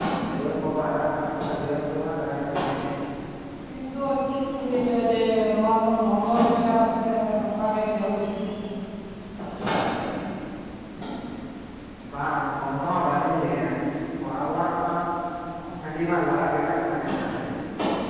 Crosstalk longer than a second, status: none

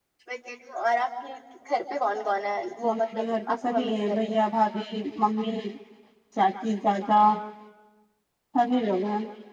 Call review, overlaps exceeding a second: present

